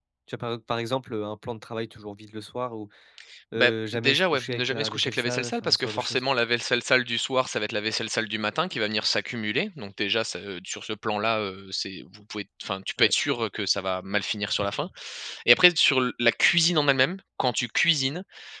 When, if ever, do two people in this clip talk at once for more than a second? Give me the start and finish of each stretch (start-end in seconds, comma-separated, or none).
3.6-6.2